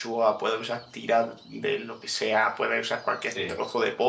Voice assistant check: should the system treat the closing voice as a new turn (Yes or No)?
No